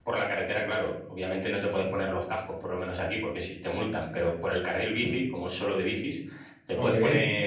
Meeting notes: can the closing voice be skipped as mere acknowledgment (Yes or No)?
Yes